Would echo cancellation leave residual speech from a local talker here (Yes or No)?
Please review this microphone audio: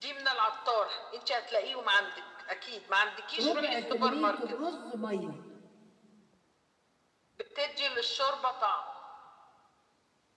Yes